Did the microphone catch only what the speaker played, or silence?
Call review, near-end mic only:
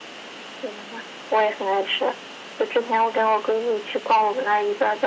Yes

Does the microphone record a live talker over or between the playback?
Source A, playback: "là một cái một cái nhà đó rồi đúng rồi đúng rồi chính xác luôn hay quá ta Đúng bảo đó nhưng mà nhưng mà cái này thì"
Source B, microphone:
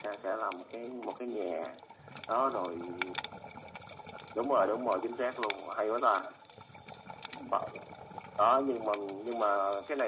No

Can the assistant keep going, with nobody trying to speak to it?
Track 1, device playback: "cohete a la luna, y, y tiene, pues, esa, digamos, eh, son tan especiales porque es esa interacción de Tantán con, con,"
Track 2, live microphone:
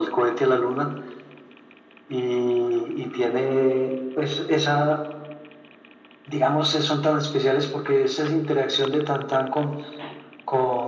Yes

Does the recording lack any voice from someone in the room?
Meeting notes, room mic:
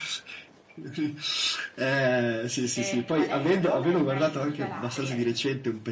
No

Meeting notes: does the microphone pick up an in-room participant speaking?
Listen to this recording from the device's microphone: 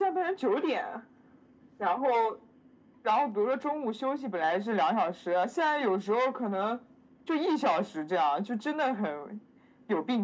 No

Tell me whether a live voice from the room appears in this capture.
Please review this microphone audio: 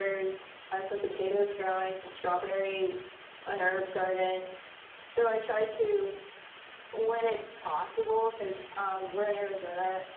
No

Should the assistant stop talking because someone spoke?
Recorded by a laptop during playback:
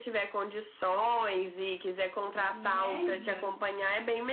Yes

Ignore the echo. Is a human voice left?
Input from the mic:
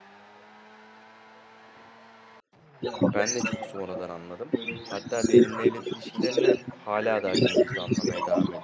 Yes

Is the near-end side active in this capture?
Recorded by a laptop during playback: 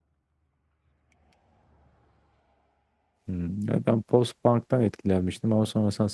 Yes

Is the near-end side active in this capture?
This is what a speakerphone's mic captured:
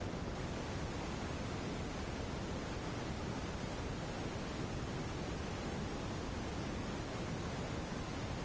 No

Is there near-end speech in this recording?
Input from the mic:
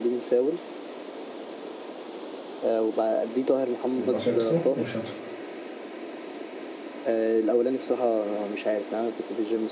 Yes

